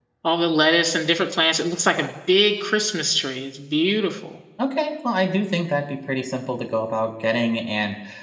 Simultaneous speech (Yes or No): No